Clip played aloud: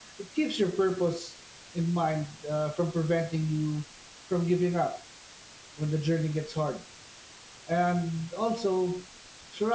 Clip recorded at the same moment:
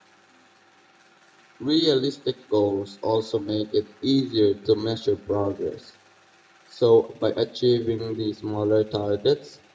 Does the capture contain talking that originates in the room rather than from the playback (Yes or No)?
Yes